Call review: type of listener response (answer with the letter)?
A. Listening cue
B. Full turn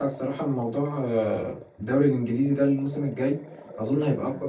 A